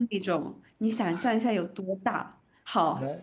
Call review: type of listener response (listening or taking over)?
listening